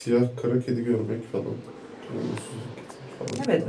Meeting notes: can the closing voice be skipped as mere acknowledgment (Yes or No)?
No